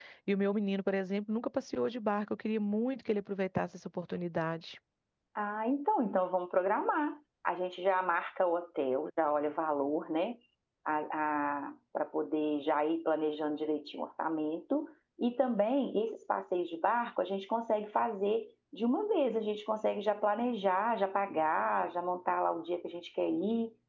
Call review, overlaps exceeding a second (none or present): none